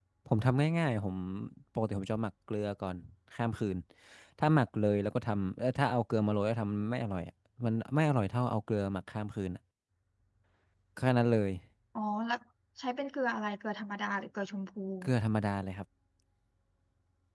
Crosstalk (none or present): none